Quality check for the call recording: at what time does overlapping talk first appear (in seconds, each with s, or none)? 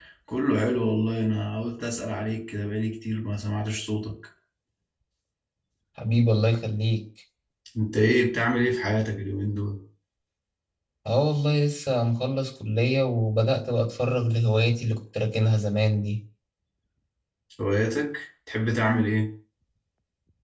none